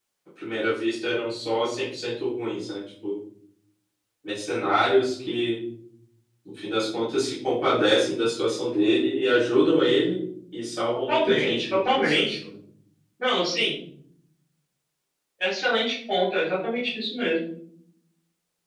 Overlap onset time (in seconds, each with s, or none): 11.1 s